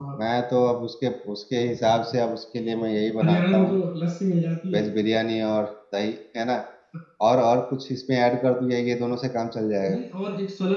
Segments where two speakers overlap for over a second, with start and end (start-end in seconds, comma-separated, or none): none